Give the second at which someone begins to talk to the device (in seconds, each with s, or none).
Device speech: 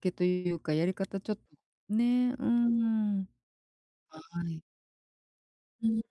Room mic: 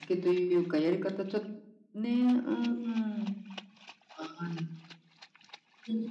none